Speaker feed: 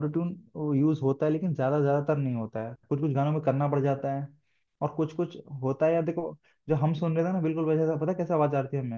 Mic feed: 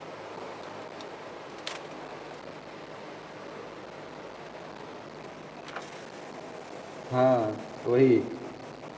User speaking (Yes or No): Yes